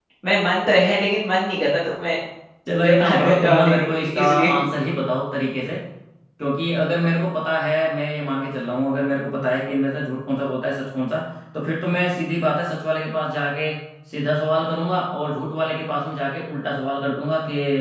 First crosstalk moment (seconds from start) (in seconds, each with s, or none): 2.8 s